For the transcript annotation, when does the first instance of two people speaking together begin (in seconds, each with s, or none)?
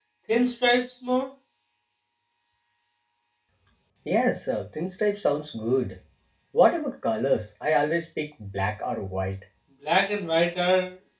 none